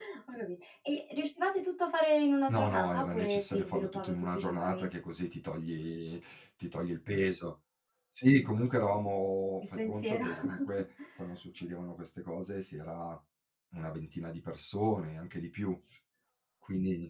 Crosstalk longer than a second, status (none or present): present